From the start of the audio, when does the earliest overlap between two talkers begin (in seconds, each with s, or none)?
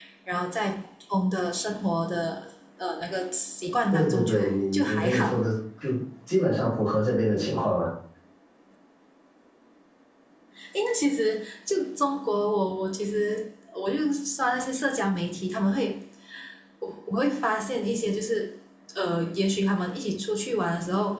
3.9 s